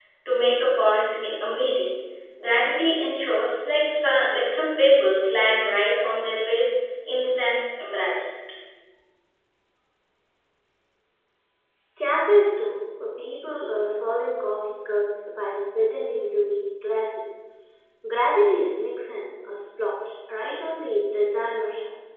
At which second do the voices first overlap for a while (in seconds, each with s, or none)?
none